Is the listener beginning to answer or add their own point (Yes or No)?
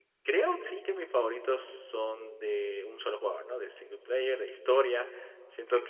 No